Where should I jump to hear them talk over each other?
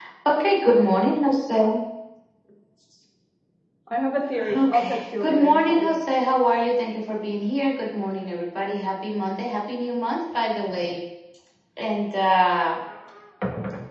4.5 s

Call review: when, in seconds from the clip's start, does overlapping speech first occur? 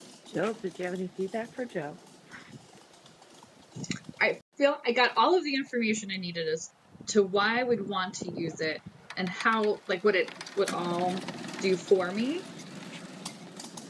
none

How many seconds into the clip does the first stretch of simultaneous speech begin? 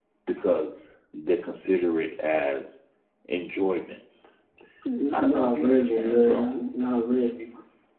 5.1 s

